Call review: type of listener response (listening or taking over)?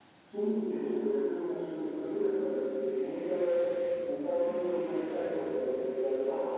taking over